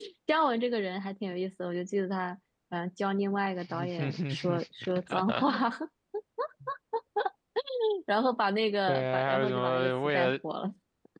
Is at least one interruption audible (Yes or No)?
Yes